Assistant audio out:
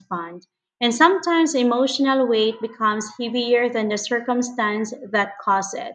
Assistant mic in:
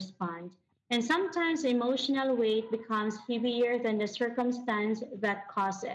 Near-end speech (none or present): none